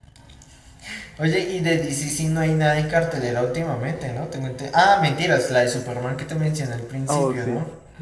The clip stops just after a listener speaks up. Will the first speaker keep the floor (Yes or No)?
No